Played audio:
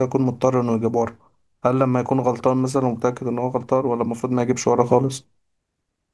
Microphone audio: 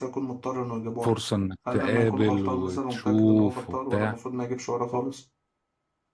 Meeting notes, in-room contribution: present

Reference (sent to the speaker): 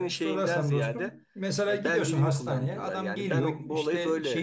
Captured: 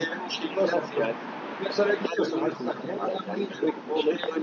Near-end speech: none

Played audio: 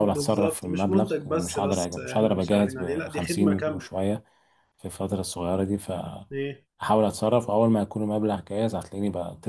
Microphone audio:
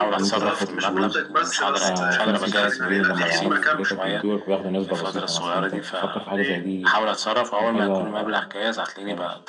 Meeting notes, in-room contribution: present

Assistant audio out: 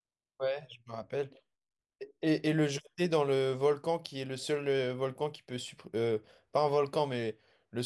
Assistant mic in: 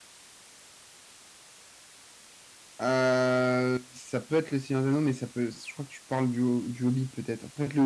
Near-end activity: present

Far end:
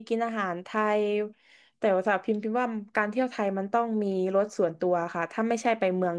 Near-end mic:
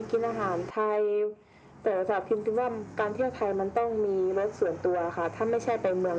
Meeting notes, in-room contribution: none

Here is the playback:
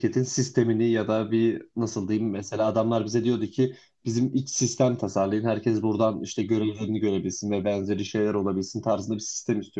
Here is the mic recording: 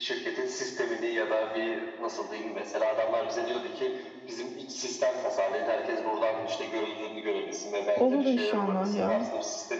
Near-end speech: present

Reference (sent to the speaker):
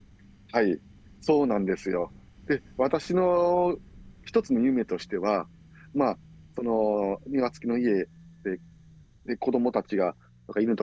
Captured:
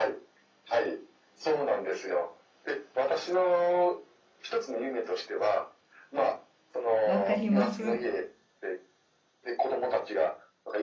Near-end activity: present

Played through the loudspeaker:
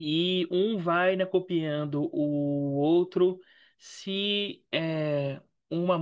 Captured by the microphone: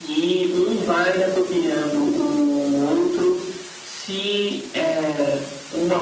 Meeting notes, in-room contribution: none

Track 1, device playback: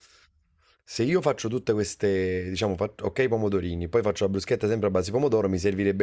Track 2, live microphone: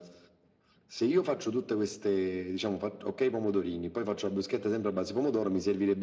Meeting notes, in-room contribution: none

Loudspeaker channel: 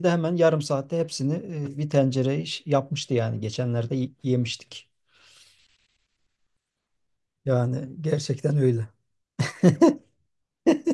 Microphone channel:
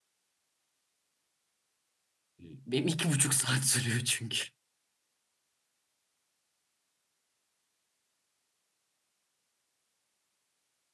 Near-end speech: present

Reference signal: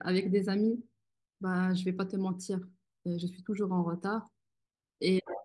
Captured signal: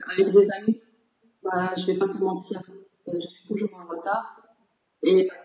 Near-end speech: none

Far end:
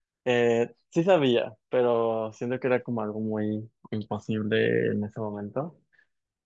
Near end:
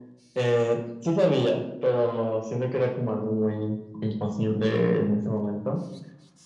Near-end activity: none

